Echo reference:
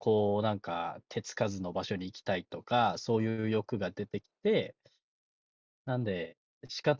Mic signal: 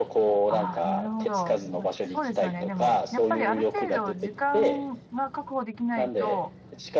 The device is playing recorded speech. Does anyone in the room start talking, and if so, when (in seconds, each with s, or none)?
0.5 s